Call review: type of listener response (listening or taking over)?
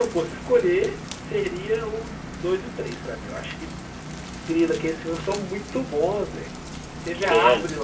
listening